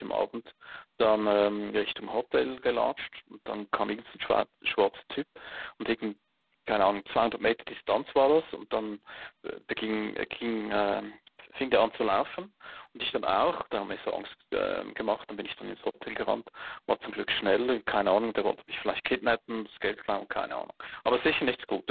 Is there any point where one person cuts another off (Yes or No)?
No